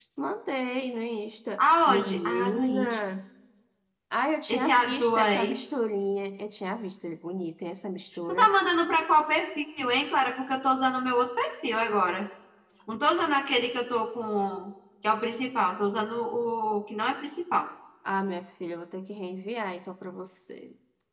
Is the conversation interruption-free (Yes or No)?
No